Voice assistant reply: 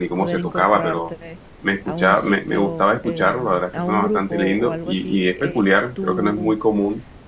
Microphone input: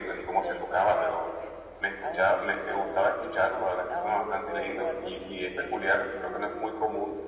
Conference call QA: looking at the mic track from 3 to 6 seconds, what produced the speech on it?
echo only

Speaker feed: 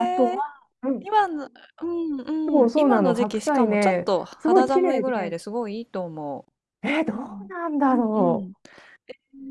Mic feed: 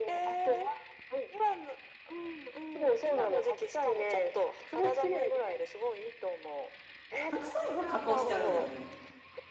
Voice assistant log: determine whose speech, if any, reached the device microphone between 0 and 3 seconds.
echo only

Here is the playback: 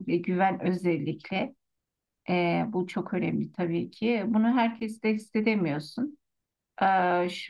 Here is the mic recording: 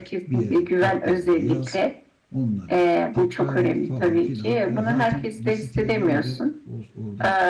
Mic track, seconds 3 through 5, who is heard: both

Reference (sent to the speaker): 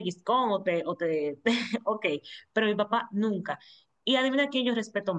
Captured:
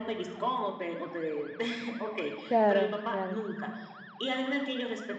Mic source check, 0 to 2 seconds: echo only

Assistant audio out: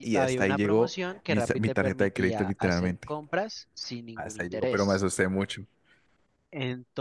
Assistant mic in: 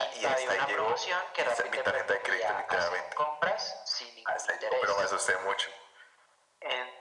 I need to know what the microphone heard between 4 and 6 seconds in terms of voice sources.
echo only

